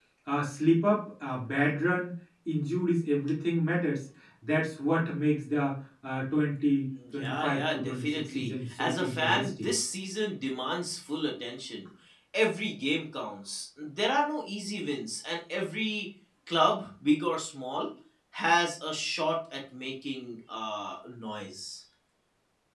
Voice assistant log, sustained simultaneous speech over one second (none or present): present